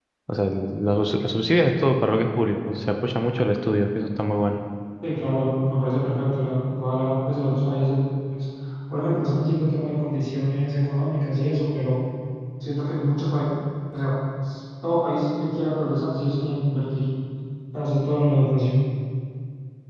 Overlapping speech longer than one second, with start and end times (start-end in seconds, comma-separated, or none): none